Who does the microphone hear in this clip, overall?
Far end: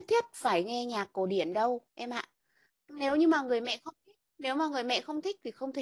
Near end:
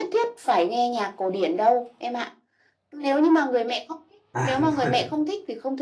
both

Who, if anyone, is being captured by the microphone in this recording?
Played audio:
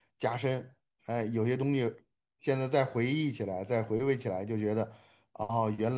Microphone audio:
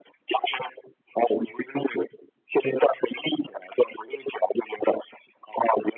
echo only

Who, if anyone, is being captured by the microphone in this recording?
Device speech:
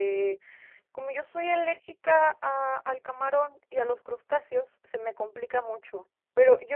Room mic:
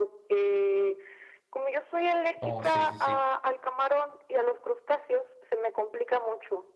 both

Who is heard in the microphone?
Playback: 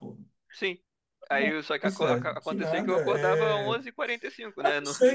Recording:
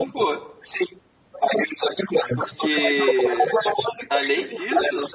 both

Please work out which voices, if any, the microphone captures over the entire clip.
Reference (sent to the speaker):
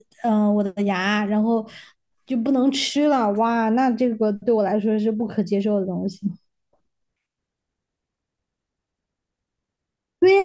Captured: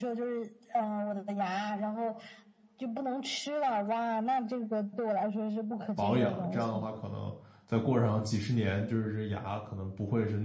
both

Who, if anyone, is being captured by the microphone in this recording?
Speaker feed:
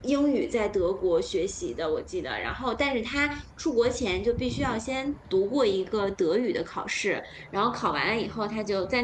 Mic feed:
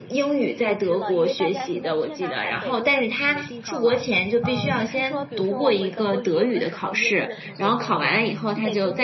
both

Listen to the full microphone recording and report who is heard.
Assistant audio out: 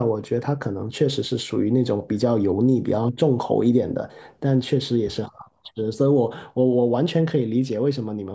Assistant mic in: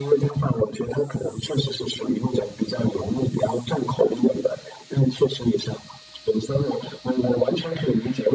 echo only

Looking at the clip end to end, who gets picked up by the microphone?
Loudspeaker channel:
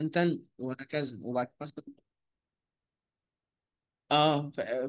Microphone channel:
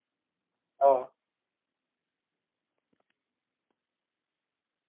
user only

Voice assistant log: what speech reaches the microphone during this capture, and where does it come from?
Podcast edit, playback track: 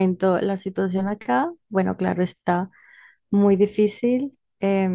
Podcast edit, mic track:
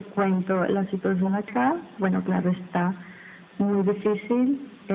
echo only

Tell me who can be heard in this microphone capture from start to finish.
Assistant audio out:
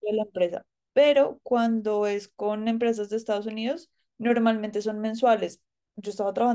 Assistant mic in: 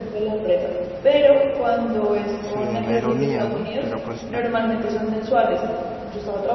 both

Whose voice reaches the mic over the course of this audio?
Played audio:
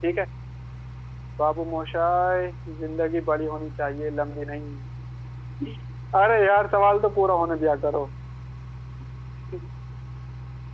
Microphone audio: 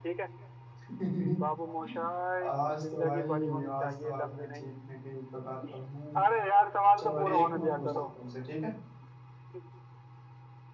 both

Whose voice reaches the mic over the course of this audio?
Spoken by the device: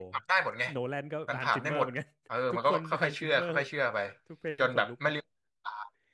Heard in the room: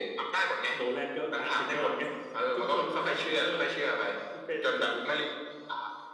echo only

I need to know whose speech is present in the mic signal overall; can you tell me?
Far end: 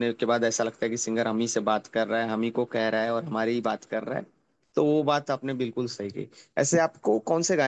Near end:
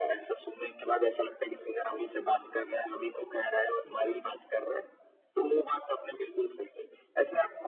echo only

